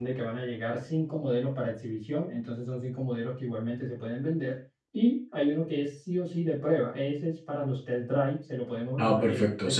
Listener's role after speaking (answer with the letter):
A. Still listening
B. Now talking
B